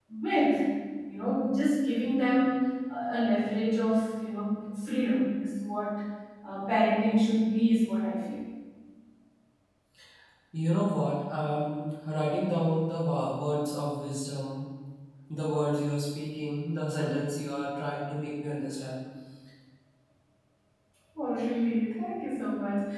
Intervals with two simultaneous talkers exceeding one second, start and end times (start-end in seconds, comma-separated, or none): none